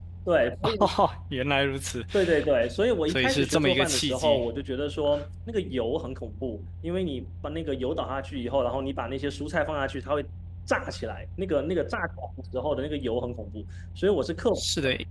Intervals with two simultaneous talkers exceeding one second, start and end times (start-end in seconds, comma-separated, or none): 3.1-4.4